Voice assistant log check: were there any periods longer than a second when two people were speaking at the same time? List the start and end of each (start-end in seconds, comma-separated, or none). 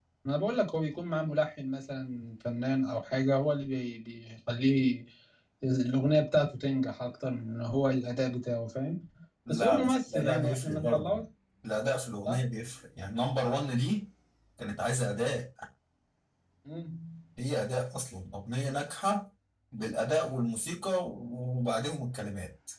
9.5-11.2